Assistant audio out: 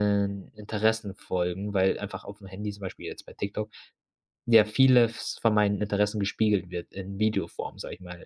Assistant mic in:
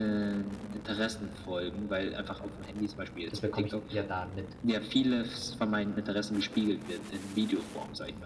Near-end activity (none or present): present